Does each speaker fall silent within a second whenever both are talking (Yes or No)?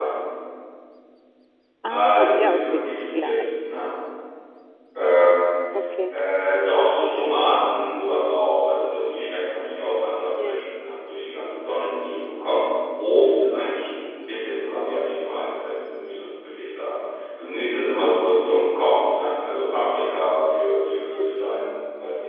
No